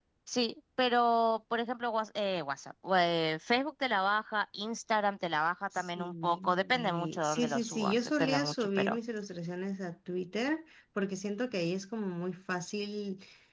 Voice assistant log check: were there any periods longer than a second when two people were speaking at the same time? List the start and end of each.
5.8-9.0

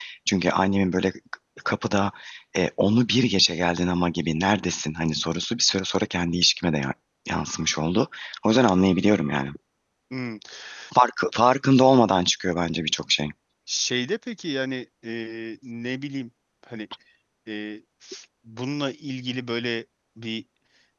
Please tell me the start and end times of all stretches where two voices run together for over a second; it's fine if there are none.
none

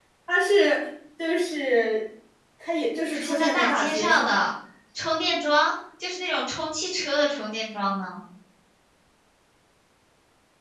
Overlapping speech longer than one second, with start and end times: 3.1-4.4

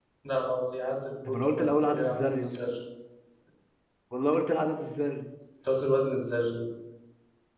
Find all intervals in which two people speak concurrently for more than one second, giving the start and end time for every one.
1.2-2.5

